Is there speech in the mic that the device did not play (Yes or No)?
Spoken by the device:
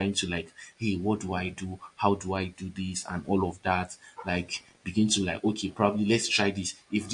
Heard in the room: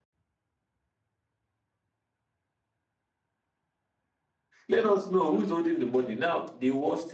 Yes